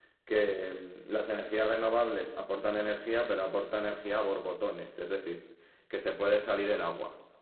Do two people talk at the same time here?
No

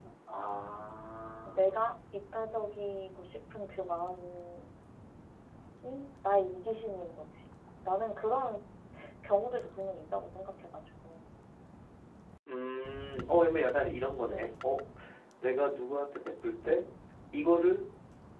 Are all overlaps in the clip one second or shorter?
Yes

